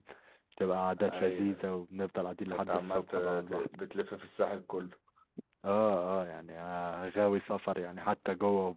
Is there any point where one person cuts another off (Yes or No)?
Yes